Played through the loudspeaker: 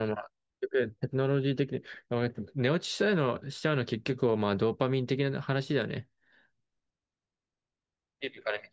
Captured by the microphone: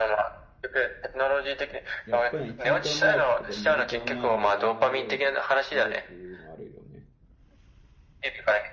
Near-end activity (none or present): present